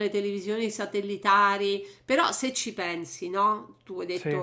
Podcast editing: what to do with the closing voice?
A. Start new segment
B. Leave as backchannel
B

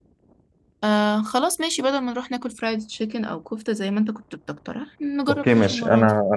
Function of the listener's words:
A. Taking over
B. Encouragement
A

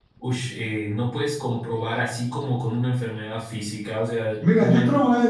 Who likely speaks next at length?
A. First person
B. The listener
B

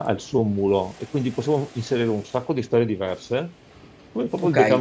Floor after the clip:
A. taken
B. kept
A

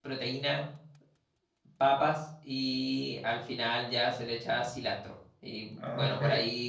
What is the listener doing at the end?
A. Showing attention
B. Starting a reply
A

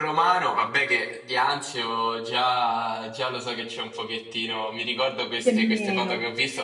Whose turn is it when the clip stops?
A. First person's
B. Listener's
A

